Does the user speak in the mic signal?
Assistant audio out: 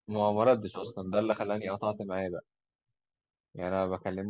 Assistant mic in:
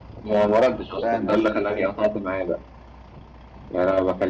Yes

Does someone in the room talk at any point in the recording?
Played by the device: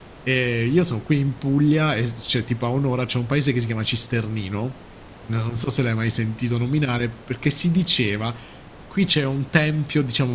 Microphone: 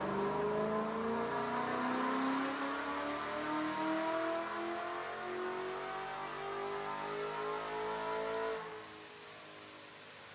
No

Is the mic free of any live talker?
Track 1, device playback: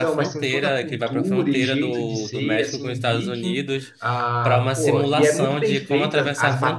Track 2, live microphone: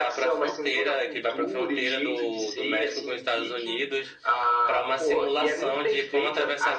Yes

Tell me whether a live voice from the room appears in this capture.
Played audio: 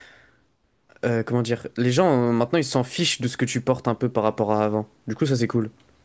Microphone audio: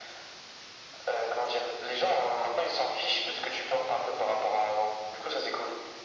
No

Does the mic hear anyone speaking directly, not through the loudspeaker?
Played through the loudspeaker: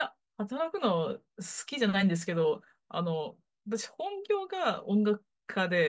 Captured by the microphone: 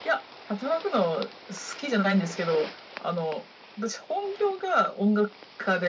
No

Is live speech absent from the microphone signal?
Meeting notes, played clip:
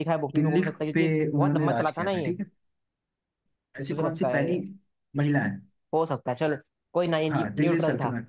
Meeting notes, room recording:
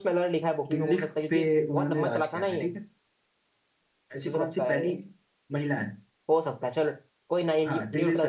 Yes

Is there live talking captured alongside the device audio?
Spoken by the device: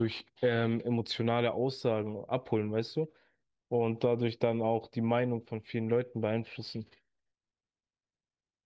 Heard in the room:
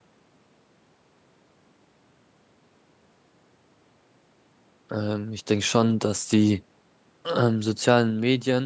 Yes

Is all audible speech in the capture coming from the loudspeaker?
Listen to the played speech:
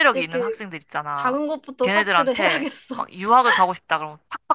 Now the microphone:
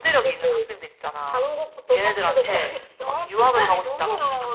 No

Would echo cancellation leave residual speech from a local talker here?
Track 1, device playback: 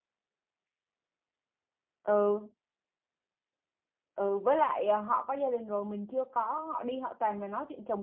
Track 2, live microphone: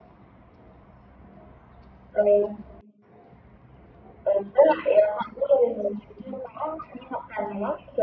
No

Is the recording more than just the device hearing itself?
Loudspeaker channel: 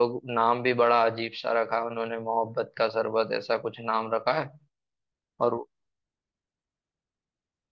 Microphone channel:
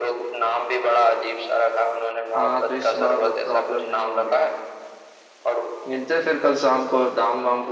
Yes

